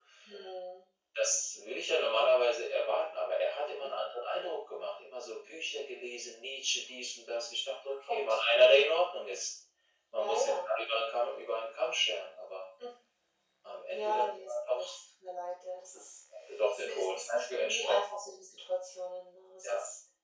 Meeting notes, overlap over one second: present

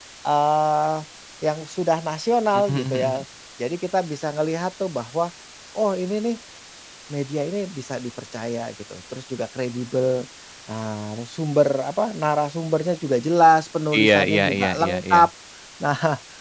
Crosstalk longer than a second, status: present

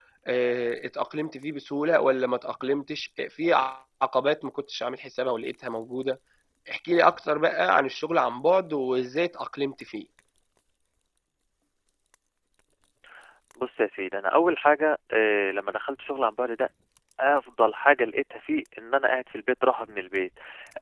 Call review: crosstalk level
none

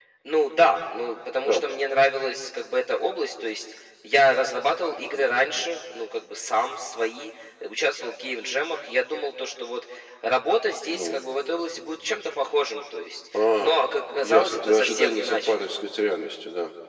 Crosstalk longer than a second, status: present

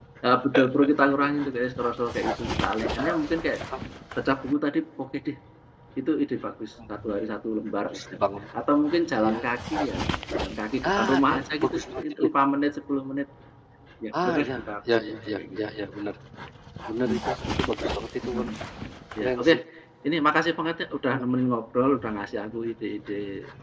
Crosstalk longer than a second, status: present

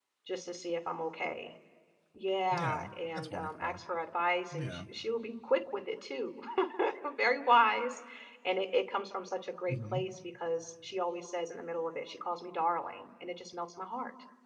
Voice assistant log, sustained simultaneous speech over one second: present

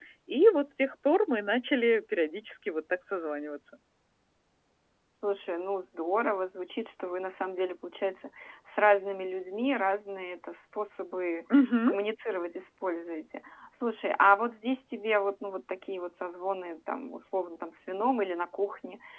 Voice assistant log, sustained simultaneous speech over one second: none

